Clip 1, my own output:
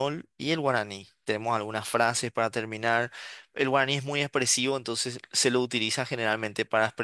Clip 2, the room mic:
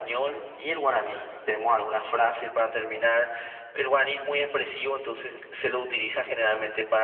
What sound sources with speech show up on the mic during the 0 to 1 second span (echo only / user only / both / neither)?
echo only